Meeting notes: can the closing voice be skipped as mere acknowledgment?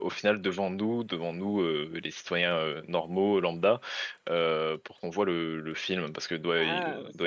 No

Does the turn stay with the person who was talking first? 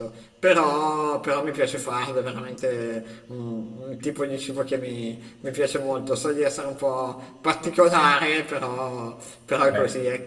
Yes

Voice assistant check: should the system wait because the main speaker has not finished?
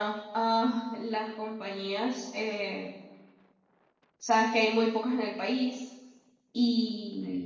Yes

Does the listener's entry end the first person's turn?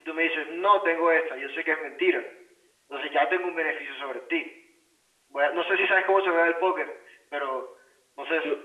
Yes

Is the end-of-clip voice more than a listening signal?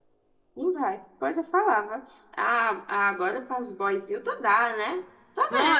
No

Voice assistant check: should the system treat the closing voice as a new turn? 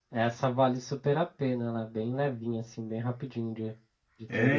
Yes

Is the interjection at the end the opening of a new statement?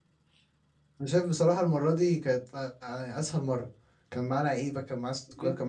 Yes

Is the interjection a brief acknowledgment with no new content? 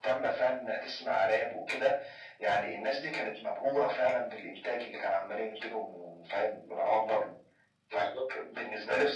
Yes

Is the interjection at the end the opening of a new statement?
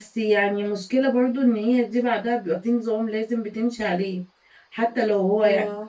No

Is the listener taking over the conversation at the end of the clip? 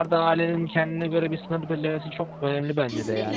Yes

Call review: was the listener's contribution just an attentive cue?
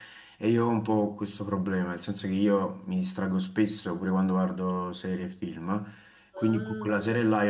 Yes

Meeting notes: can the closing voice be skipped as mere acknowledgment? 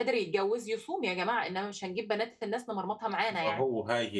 No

